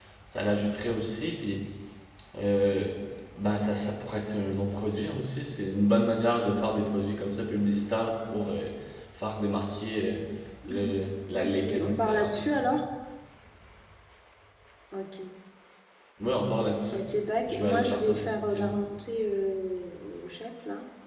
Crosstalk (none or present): present